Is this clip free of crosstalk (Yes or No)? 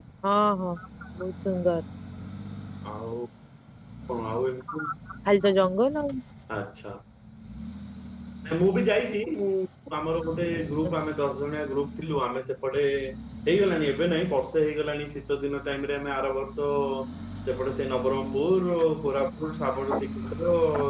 Yes